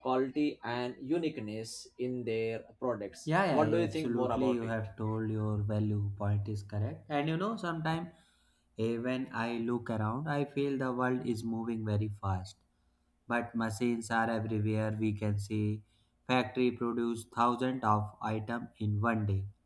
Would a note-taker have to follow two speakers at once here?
Yes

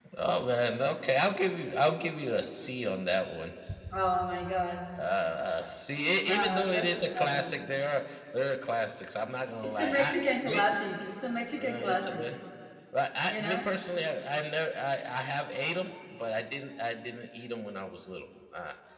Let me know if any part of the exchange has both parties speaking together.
Yes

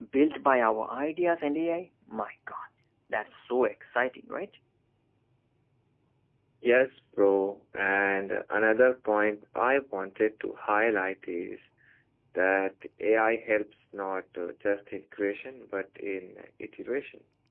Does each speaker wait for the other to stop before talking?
Yes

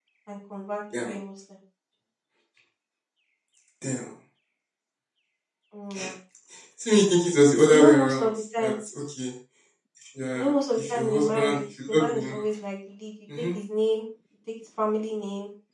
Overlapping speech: Yes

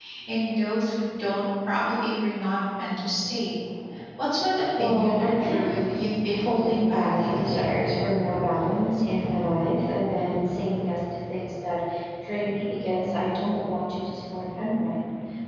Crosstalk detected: Yes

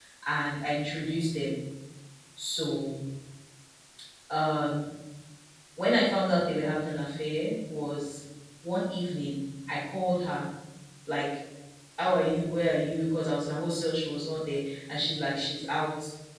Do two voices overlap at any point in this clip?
No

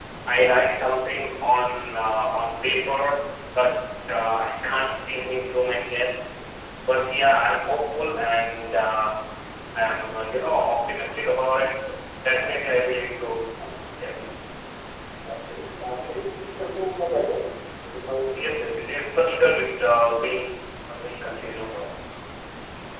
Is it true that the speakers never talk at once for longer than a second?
Yes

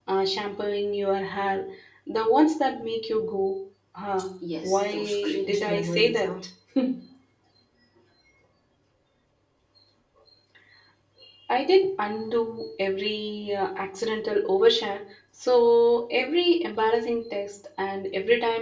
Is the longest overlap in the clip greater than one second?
Yes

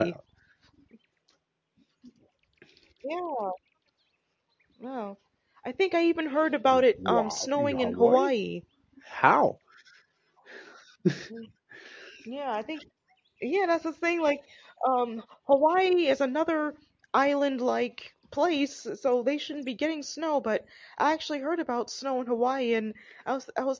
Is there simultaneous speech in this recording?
Yes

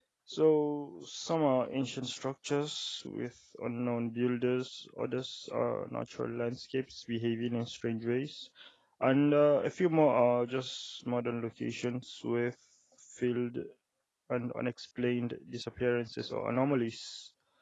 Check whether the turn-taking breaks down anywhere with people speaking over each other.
No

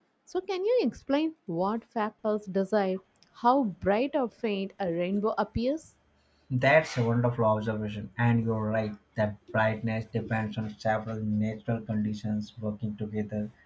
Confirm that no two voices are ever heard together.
Yes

